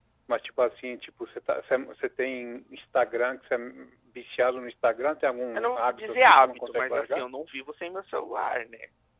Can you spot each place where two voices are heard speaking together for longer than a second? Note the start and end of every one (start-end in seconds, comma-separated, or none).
5.5-7.3